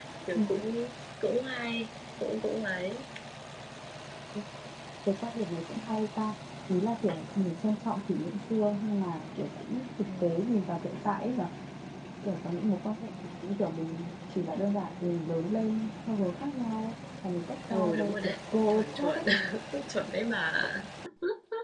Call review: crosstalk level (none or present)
present